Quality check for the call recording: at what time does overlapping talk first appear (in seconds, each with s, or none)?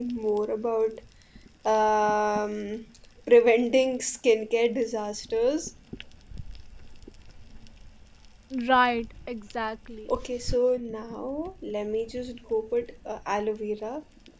none